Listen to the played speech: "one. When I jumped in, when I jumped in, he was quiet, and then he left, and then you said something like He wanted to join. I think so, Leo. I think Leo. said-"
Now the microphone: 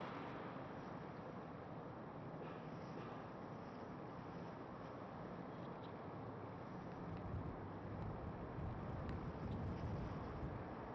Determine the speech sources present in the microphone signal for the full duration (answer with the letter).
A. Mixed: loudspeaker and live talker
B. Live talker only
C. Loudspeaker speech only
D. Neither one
D